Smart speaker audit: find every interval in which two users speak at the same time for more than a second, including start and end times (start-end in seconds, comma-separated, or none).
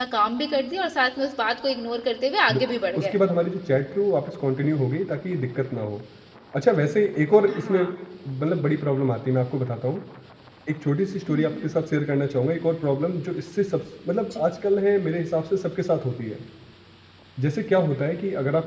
none